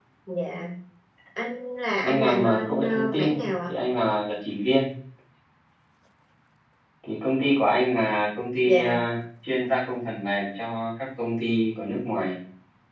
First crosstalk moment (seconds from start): 2.0 s

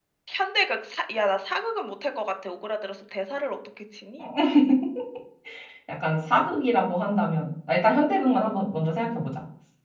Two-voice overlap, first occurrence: none

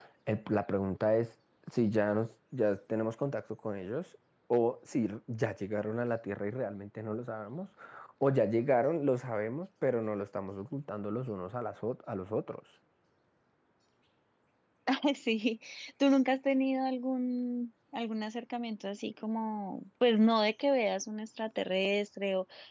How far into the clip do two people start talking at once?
none

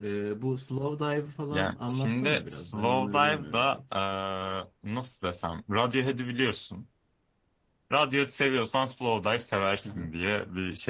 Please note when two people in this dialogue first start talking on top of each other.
1.5 s

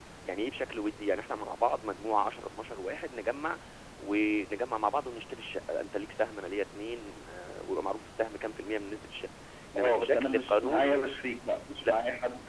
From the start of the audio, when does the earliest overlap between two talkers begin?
9.8 s

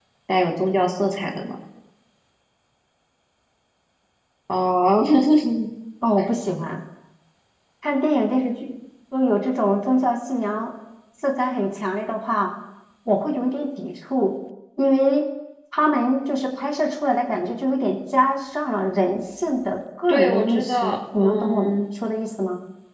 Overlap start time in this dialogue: 20.1 s

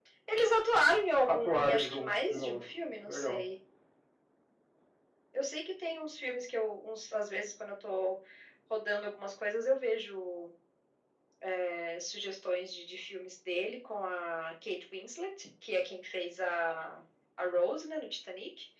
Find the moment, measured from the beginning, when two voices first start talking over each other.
1.3 s

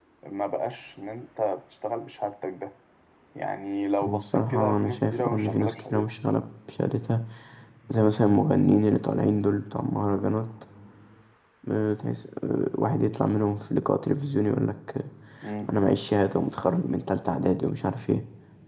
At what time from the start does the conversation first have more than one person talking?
4.0 s

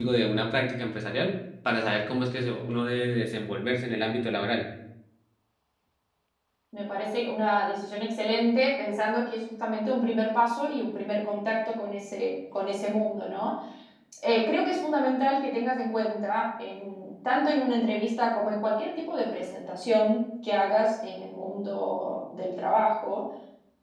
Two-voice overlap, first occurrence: none

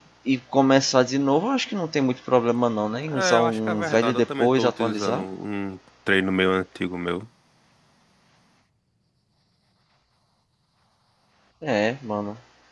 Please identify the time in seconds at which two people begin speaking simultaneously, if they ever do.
3.1 s

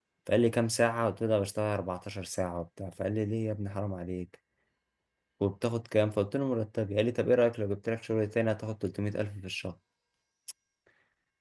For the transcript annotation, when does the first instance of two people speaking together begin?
none

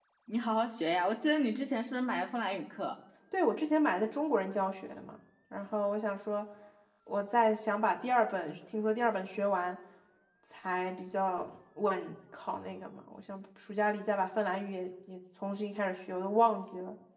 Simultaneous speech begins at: none

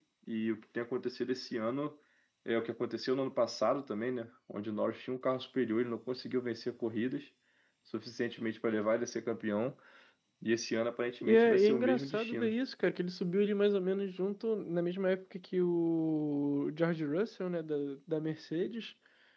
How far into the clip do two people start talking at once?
11.2 s

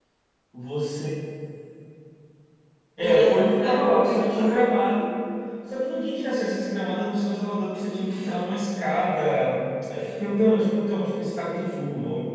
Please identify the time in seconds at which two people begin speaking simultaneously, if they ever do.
3.0 s

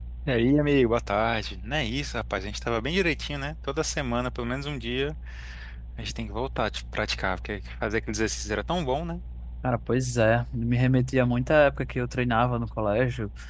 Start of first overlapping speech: none

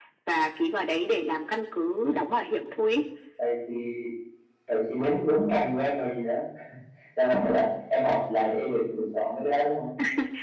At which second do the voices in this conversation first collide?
none

